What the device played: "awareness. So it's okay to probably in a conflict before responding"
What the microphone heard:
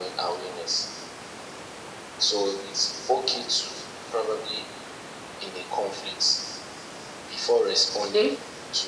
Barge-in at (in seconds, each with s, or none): 8.0 s